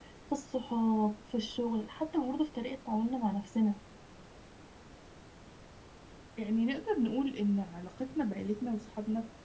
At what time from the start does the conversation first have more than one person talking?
none

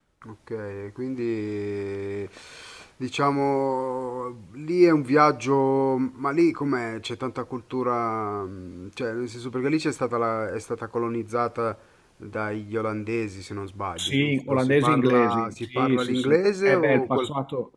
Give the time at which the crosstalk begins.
14 s

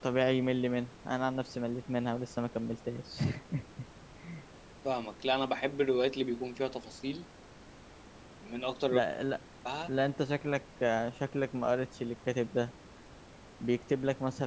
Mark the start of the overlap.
none

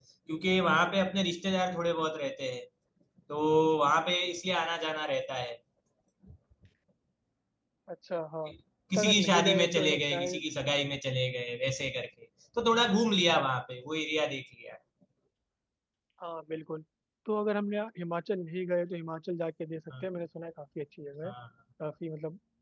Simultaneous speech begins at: 9 s

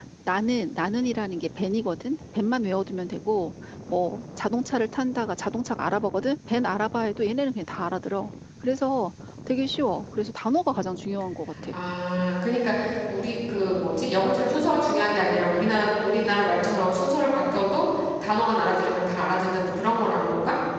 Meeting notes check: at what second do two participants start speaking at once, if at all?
none

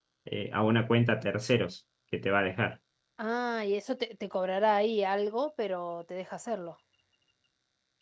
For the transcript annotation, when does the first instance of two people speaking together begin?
none

